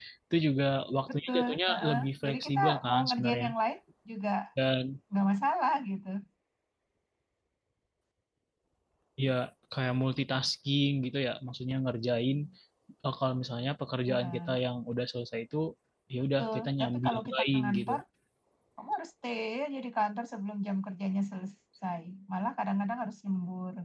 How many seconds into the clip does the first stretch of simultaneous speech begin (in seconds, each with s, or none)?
1.3 s